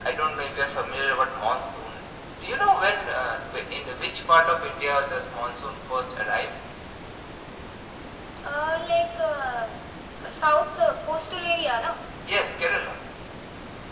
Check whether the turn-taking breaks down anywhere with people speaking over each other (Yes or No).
No